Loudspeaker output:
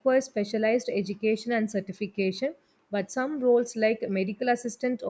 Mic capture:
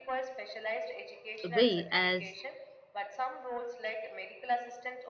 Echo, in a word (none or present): present